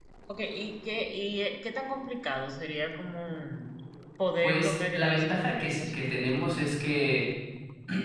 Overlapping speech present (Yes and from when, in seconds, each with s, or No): Yes, from 4.4 s